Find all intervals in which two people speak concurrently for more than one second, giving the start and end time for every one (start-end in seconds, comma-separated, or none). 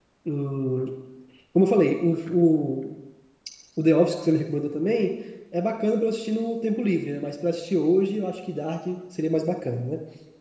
none